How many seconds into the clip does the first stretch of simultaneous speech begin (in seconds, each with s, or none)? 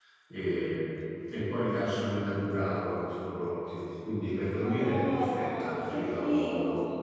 4.6 s